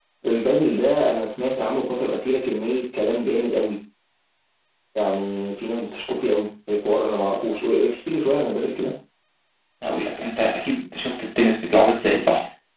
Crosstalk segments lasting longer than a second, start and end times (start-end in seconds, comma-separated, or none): none